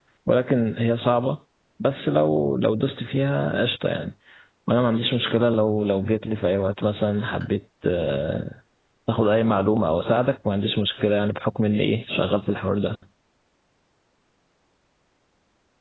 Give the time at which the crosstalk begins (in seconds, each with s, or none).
none